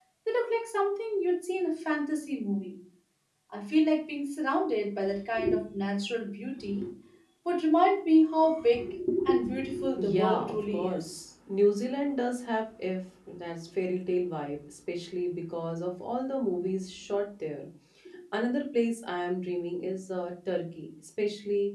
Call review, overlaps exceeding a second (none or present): present